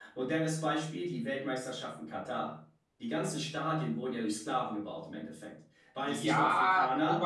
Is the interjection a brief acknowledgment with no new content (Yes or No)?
No